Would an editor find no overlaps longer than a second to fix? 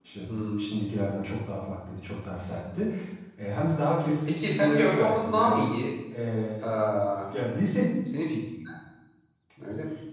No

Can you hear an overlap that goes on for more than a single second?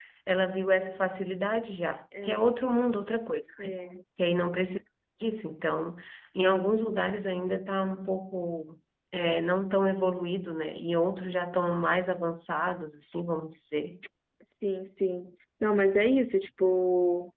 No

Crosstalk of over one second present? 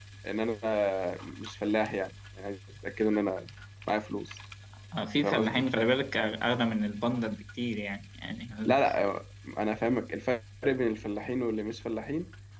No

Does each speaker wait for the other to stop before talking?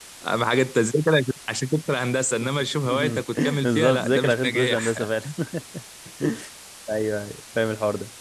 No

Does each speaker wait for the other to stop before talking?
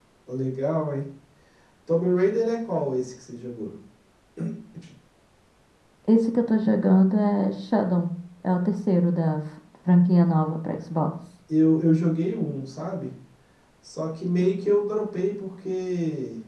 Yes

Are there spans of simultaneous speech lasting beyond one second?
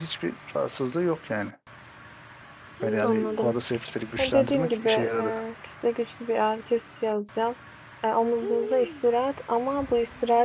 Yes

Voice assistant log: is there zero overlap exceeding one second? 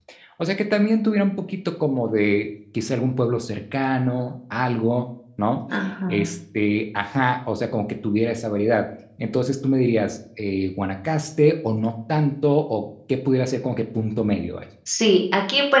Yes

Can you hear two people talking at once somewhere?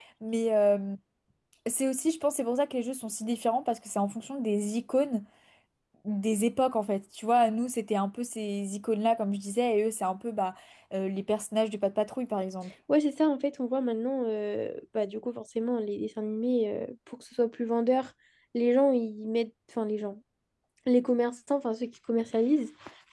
No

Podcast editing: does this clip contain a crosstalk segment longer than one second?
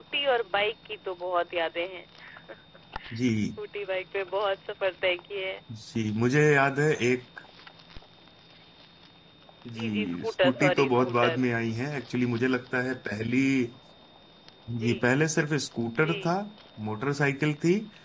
Yes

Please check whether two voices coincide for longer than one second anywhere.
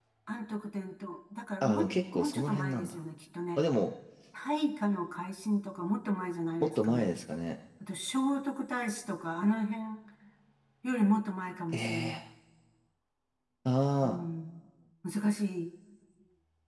Yes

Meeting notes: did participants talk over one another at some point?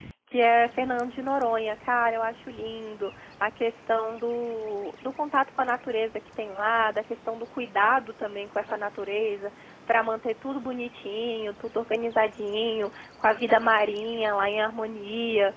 No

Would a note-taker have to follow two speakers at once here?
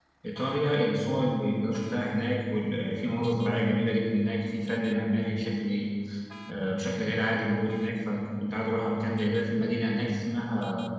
No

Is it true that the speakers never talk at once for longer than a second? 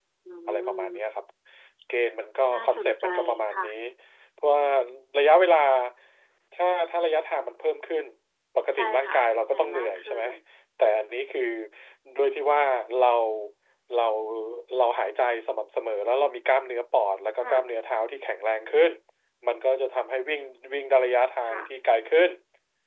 No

